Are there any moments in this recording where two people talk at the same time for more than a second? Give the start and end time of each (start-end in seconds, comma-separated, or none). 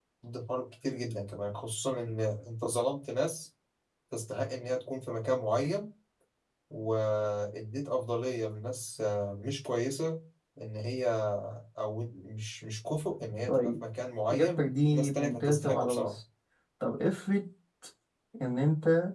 14.3-16.2